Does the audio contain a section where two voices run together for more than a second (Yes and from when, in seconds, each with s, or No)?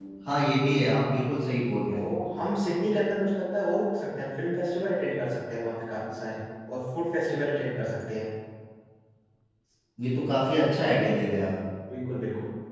No